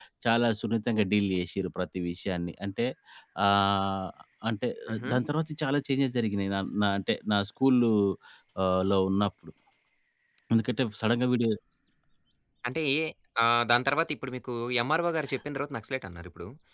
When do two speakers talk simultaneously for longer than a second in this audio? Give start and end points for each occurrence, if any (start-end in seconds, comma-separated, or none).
none